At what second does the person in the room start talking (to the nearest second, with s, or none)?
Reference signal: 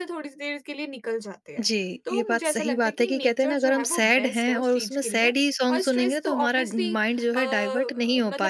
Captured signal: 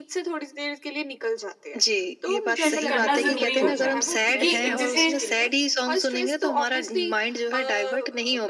3 s